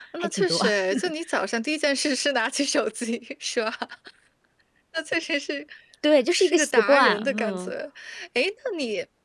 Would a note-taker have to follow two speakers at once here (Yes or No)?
Yes